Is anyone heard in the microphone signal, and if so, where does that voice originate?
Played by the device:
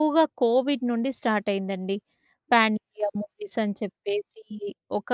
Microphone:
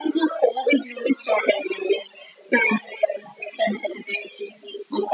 echo only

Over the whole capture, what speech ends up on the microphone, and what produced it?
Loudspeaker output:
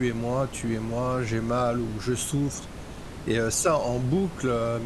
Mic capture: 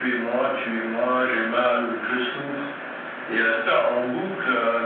echo only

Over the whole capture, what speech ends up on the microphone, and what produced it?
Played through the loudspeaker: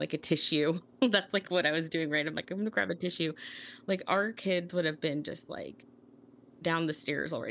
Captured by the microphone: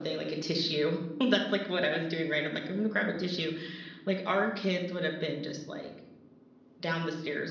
echo only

